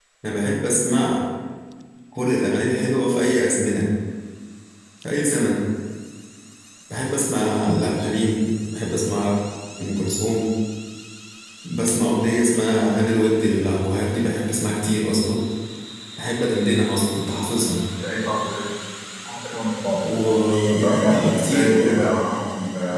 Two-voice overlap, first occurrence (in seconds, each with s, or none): 20.7 s